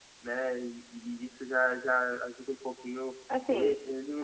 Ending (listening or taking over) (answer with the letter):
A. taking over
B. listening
A